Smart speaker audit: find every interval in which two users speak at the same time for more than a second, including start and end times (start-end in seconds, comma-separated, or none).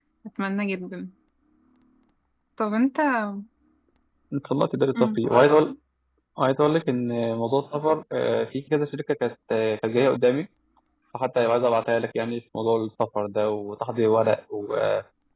none